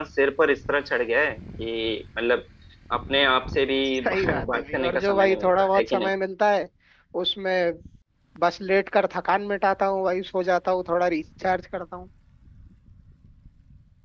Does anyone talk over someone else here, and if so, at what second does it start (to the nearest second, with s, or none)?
4 s